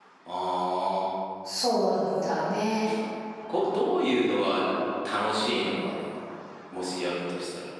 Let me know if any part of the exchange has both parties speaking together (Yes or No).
No